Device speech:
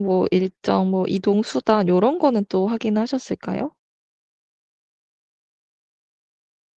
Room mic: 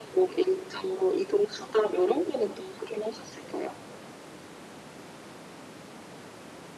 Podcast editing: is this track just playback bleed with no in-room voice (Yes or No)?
Yes